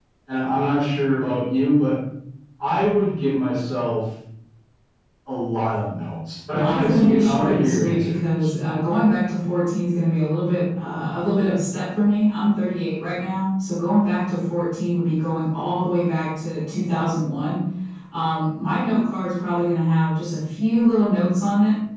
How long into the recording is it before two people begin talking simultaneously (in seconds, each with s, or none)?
6.5 s